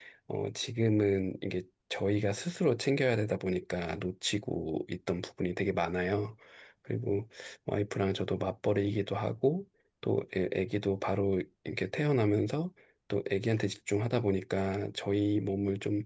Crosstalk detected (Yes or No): No